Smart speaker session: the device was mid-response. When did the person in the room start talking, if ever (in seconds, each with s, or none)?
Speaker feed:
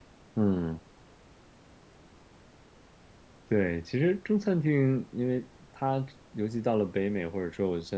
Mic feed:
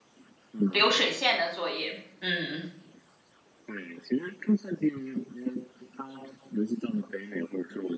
0.7 s